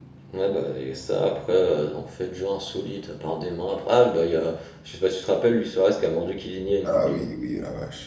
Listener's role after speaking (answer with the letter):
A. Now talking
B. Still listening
A